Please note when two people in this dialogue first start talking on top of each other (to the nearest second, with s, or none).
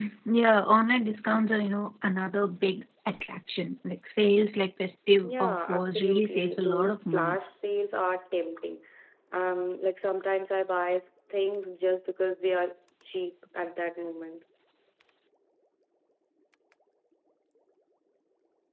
5 s